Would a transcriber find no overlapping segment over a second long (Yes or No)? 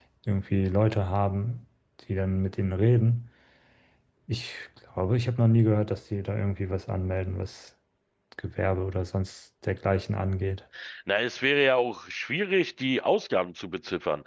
Yes